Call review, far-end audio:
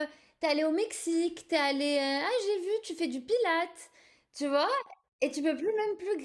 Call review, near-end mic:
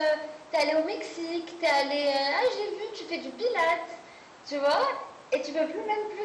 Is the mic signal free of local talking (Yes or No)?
Yes